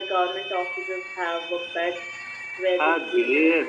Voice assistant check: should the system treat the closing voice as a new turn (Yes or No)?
Yes